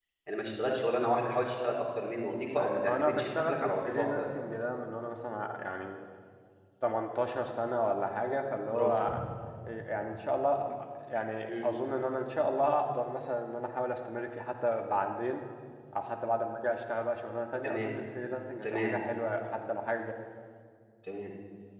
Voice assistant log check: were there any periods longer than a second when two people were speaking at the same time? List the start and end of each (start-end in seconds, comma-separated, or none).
2.6-4.3